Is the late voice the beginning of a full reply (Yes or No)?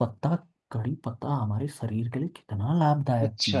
Yes